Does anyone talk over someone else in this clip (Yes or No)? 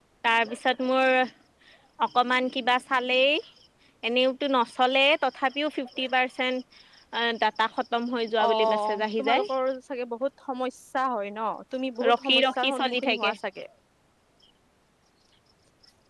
Yes